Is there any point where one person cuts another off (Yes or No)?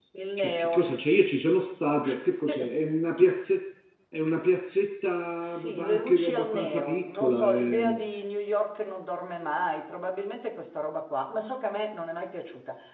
Yes